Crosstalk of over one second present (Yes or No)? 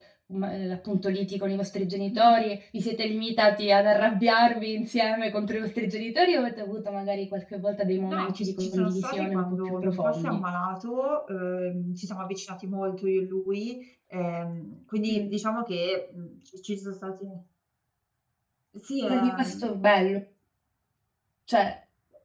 Yes